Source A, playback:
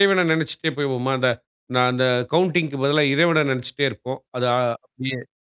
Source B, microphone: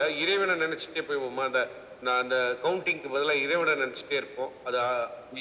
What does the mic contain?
echo only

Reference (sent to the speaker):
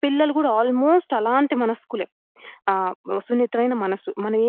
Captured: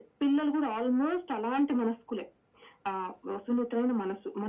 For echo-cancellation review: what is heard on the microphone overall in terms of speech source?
echo only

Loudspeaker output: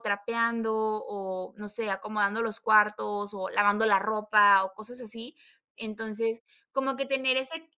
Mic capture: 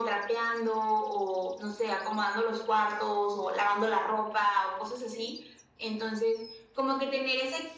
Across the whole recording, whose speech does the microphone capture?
echo only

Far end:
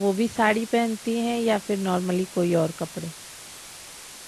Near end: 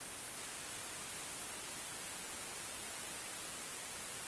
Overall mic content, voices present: neither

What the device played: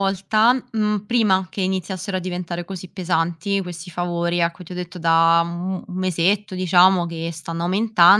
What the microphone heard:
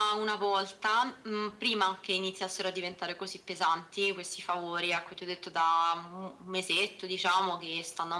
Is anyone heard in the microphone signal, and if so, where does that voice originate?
echo only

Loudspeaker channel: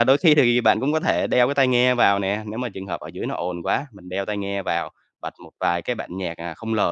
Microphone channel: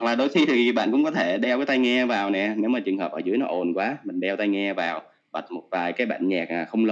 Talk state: echo only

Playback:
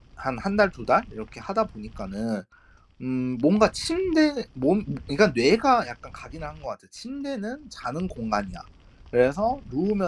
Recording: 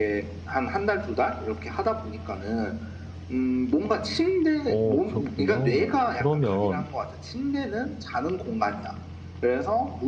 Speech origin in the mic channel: both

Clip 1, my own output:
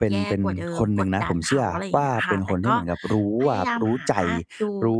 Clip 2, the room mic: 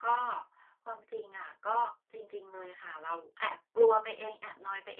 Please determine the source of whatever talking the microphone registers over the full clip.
user only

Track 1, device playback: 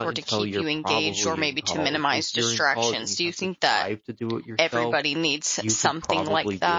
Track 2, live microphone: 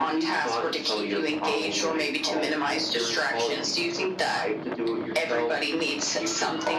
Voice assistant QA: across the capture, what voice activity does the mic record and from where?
echo only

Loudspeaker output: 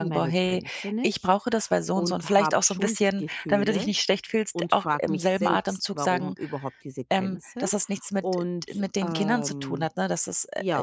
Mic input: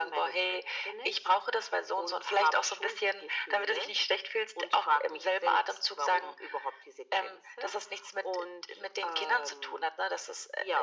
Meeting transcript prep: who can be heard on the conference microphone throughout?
echo only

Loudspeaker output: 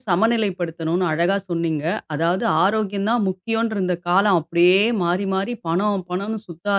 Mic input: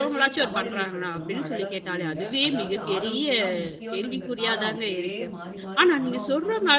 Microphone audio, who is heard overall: both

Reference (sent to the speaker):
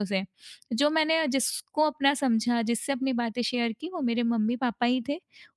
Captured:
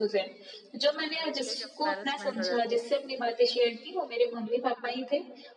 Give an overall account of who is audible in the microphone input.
both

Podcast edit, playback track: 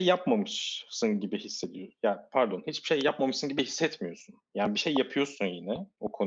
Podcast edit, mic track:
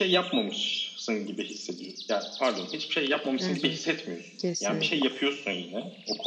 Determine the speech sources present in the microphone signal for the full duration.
both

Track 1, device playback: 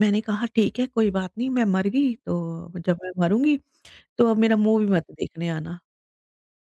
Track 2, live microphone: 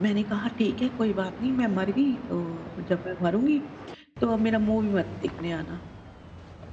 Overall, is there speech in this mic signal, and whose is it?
echo only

